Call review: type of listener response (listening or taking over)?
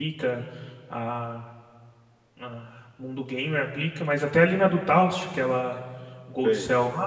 listening